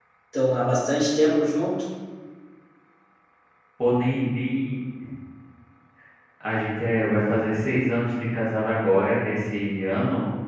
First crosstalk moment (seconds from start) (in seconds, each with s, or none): none